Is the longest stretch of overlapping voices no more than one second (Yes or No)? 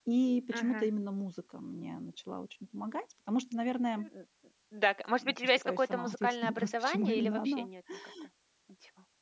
No